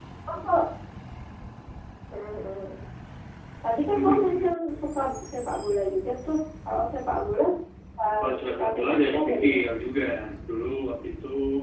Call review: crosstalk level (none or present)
present